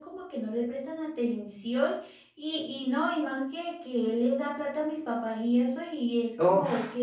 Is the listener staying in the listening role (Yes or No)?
Yes